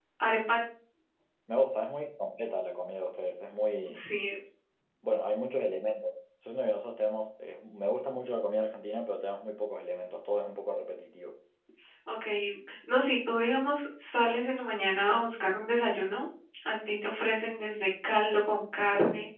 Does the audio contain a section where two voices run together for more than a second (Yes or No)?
No